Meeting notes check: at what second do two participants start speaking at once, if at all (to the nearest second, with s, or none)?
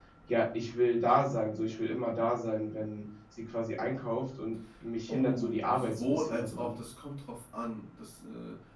5 s